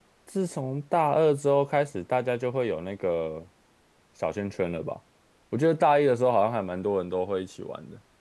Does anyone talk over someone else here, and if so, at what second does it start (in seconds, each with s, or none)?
none